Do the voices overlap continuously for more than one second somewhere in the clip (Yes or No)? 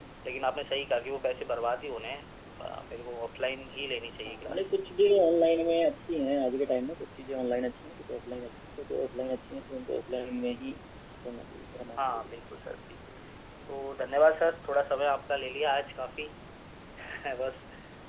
No